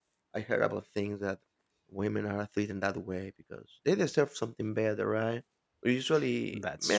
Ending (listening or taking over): listening